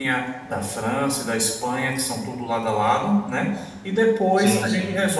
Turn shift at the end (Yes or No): No